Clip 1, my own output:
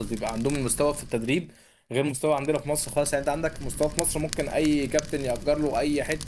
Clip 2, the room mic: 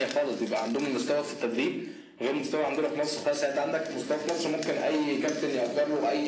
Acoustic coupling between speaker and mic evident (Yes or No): Yes